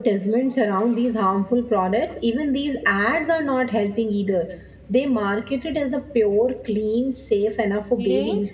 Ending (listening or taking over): taking over